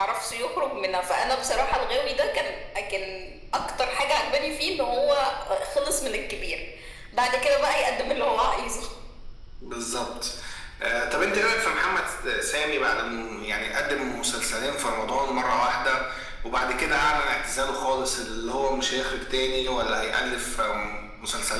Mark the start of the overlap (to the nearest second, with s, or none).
none